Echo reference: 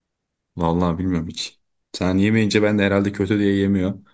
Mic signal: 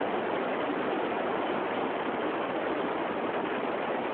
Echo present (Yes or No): No